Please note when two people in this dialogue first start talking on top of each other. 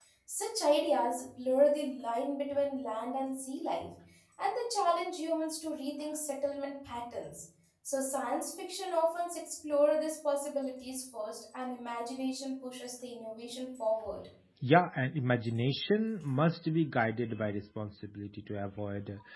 none

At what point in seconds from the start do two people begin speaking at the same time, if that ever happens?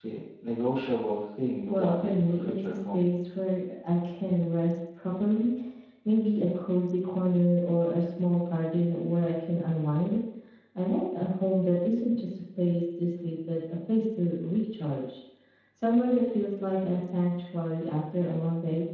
2 s

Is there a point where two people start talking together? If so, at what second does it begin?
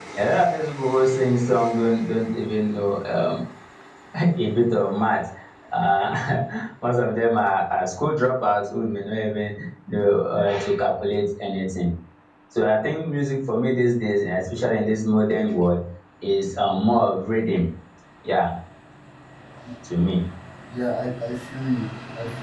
none

